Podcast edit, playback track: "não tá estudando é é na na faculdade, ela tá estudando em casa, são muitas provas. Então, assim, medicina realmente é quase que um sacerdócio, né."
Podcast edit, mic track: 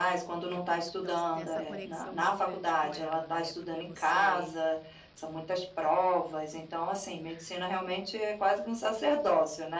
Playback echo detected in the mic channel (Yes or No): Yes